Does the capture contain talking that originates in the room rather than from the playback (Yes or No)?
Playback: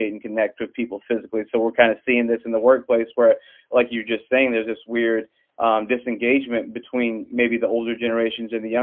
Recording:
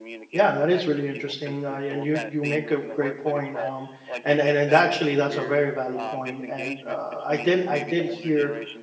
Yes